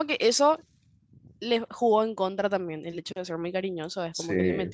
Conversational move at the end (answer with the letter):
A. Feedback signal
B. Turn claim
A